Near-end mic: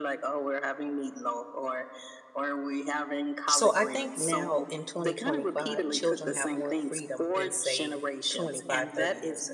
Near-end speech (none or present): present